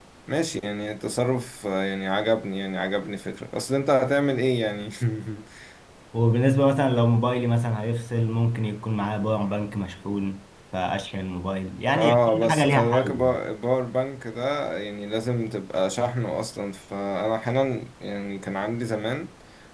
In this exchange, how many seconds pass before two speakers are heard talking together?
11.9 s

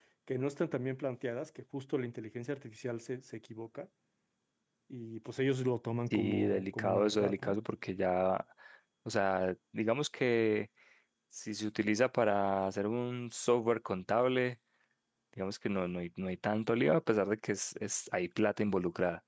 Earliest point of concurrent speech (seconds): 6.1 s

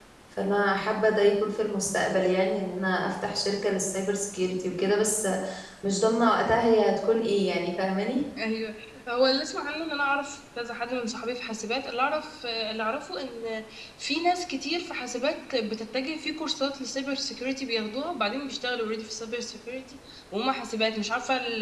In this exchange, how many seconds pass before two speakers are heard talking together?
none

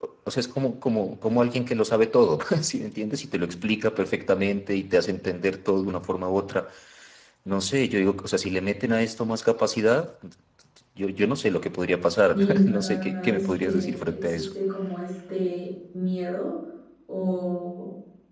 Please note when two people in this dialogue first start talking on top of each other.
12.3 s

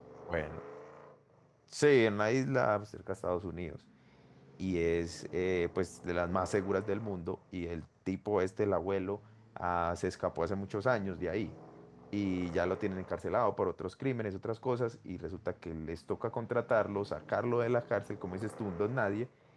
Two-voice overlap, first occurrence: none

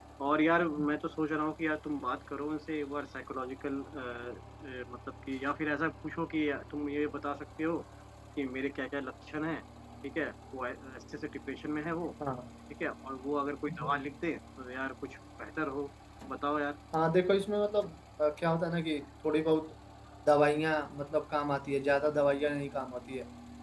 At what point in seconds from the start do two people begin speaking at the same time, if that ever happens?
none

